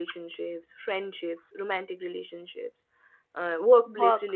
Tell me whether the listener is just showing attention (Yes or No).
Yes